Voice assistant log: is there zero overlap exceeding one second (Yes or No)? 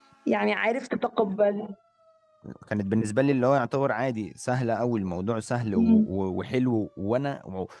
Yes